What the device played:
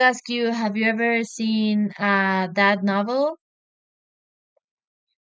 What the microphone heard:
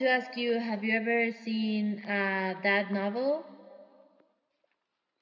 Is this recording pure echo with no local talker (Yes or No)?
Yes